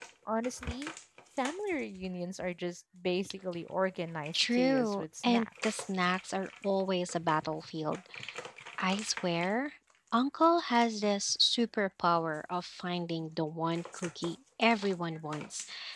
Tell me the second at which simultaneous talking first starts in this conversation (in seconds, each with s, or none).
4.3 s